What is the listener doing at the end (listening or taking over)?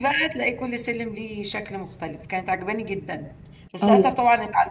listening